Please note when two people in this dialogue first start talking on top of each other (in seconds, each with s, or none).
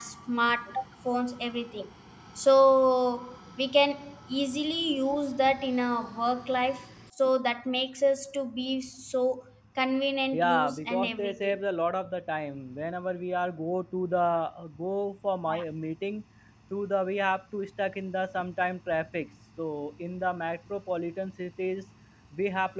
10.4 s